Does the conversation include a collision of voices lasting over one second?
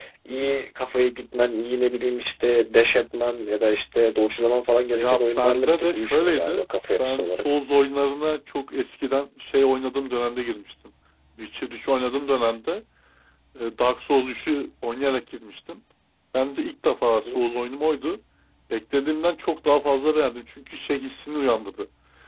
Yes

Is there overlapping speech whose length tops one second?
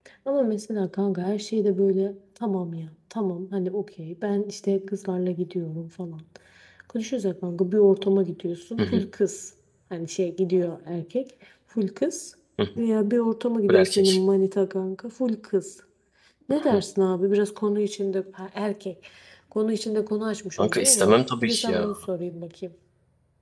Yes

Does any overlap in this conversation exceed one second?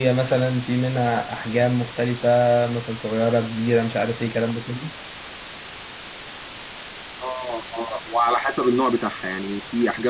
No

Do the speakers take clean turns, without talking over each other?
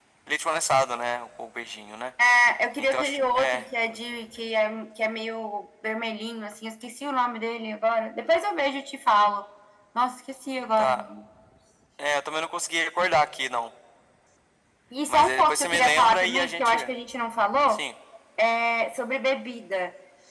No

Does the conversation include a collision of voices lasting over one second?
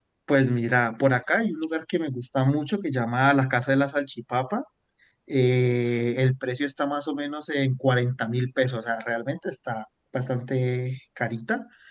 No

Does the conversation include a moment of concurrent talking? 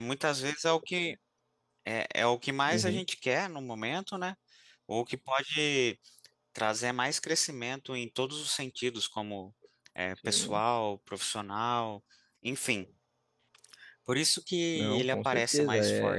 Yes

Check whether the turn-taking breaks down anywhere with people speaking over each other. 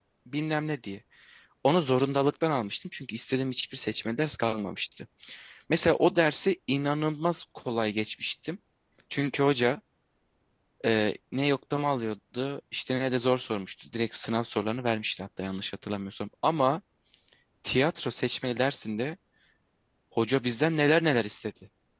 No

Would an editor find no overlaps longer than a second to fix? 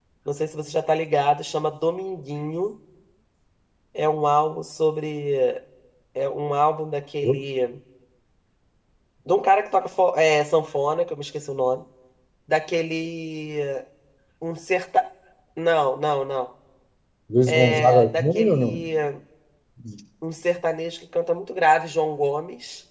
No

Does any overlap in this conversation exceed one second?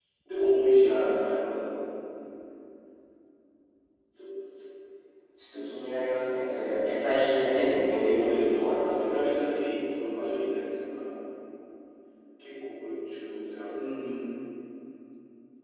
Yes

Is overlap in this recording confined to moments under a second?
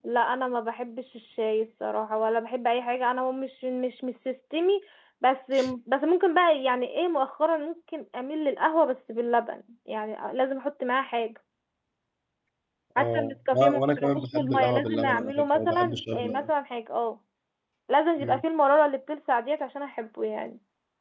No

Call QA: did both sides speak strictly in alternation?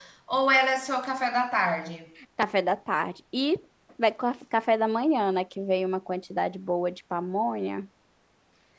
Yes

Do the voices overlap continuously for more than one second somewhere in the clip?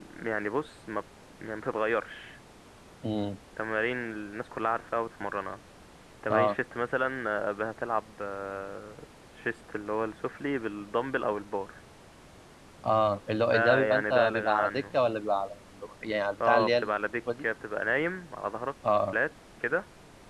Yes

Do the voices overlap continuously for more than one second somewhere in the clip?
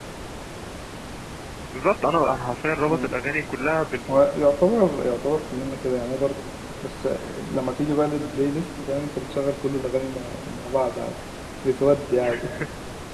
No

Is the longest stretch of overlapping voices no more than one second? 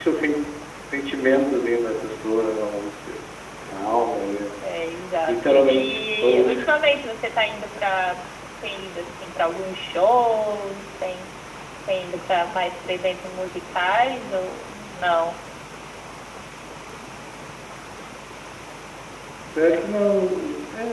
No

